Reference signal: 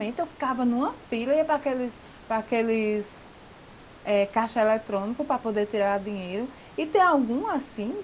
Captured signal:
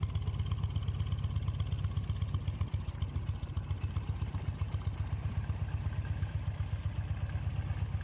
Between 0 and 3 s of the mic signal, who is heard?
neither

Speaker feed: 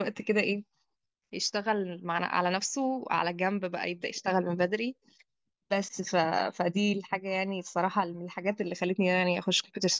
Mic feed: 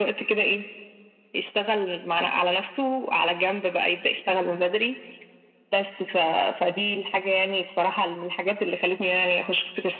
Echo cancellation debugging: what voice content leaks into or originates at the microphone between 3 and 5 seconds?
echo only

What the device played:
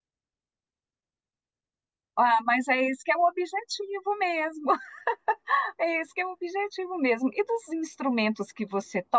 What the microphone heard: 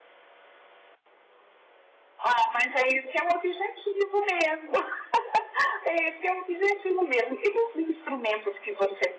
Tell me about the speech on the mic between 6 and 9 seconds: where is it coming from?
echo only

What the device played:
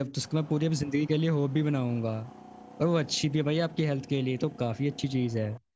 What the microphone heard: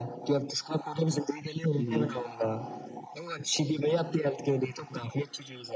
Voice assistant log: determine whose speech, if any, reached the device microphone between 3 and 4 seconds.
echo only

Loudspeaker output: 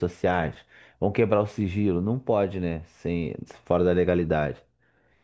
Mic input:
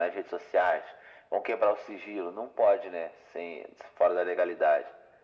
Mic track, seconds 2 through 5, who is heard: echo only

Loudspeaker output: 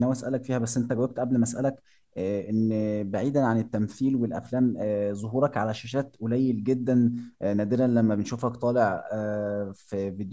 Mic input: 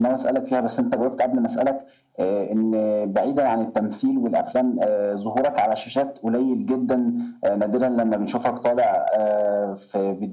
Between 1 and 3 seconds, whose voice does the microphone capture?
echo only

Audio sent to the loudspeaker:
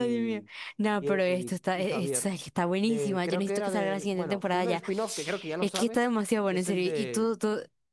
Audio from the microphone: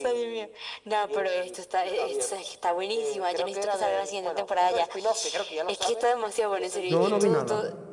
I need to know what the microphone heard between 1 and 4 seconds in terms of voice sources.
echo only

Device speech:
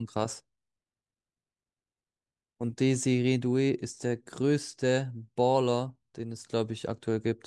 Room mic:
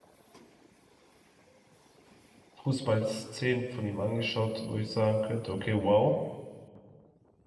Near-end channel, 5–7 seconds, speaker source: user only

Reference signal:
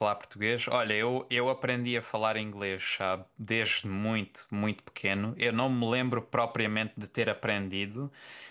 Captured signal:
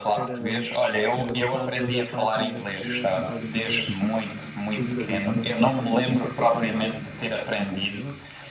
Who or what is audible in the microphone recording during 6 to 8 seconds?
both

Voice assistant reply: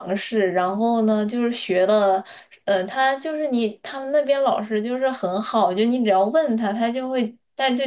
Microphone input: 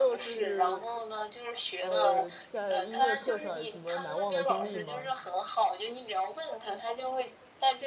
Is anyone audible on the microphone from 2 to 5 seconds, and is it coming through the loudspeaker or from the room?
both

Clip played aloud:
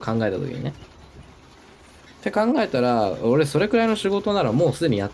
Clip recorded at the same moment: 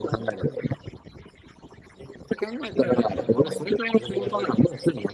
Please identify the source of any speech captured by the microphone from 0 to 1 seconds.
both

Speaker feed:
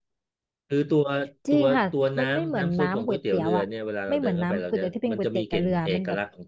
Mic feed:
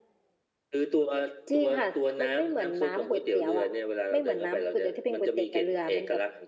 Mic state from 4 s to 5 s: echo only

